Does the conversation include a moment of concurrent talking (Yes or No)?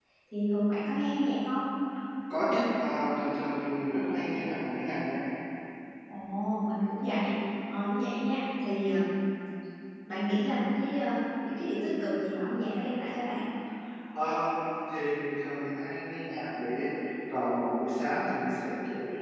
No